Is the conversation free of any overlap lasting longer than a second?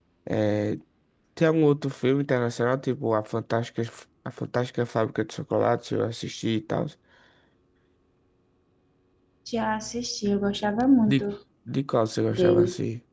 Yes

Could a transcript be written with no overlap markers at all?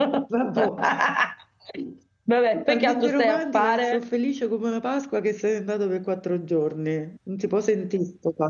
No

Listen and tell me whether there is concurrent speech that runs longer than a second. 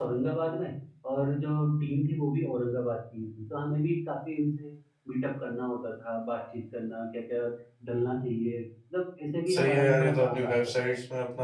Yes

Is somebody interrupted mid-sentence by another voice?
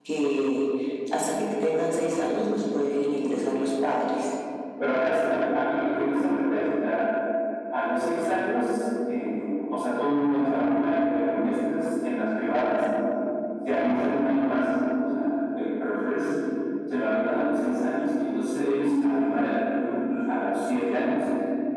No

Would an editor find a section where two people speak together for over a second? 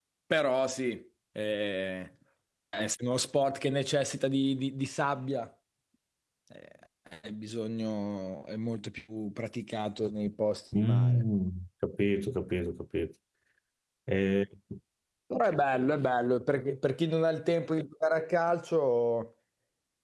No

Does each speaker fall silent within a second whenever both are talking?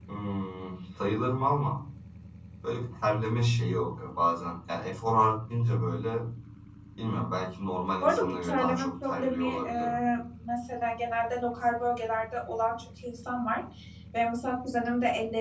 No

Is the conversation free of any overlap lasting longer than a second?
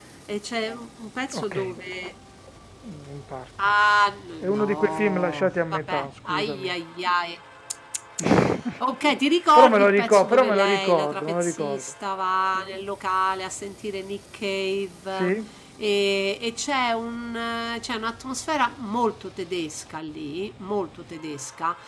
No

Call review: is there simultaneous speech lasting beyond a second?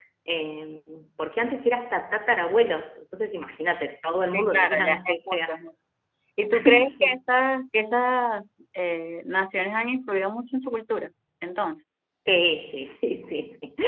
Yes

